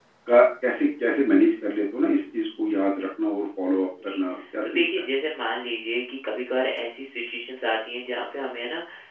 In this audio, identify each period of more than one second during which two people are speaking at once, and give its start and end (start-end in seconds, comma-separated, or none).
none